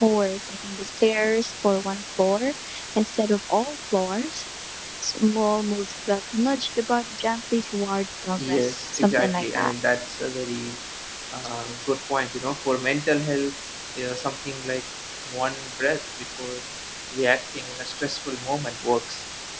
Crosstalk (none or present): present